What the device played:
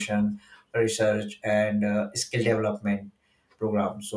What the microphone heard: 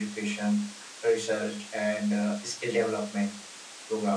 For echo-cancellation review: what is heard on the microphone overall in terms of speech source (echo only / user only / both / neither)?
echo only